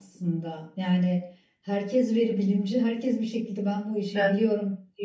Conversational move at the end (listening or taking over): listening